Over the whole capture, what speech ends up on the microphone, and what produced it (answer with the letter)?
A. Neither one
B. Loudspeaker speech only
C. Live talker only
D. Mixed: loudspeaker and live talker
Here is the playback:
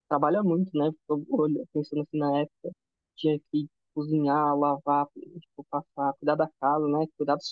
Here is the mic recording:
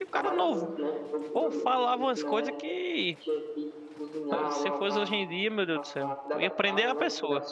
D